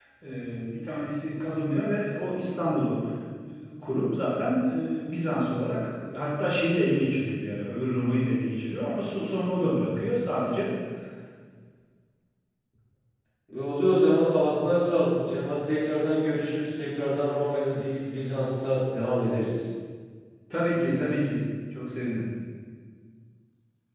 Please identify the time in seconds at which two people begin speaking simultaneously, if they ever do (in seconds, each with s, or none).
17.4 s